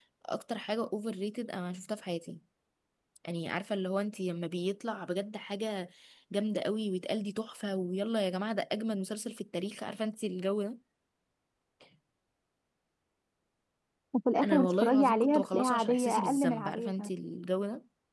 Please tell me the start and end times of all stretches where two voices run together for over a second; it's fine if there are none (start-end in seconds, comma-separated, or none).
14.4-17.1